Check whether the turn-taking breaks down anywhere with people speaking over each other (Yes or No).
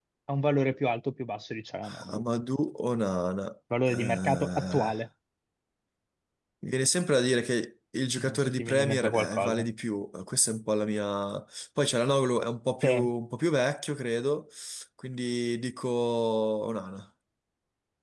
Yes